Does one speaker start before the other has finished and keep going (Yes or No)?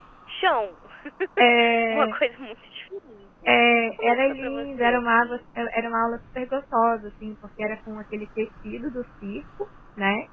Yes